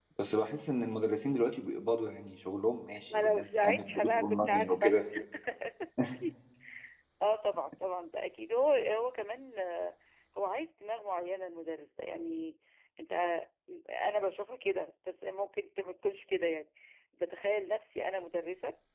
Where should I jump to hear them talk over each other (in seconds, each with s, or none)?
3.1 s